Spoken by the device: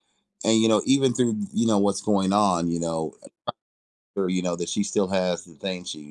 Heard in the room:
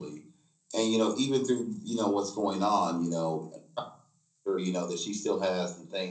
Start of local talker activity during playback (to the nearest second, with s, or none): none